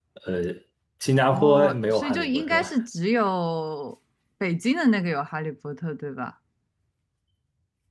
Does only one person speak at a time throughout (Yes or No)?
No